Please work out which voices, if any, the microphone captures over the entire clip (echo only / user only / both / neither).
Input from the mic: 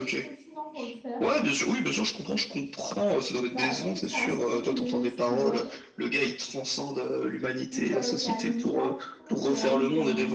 both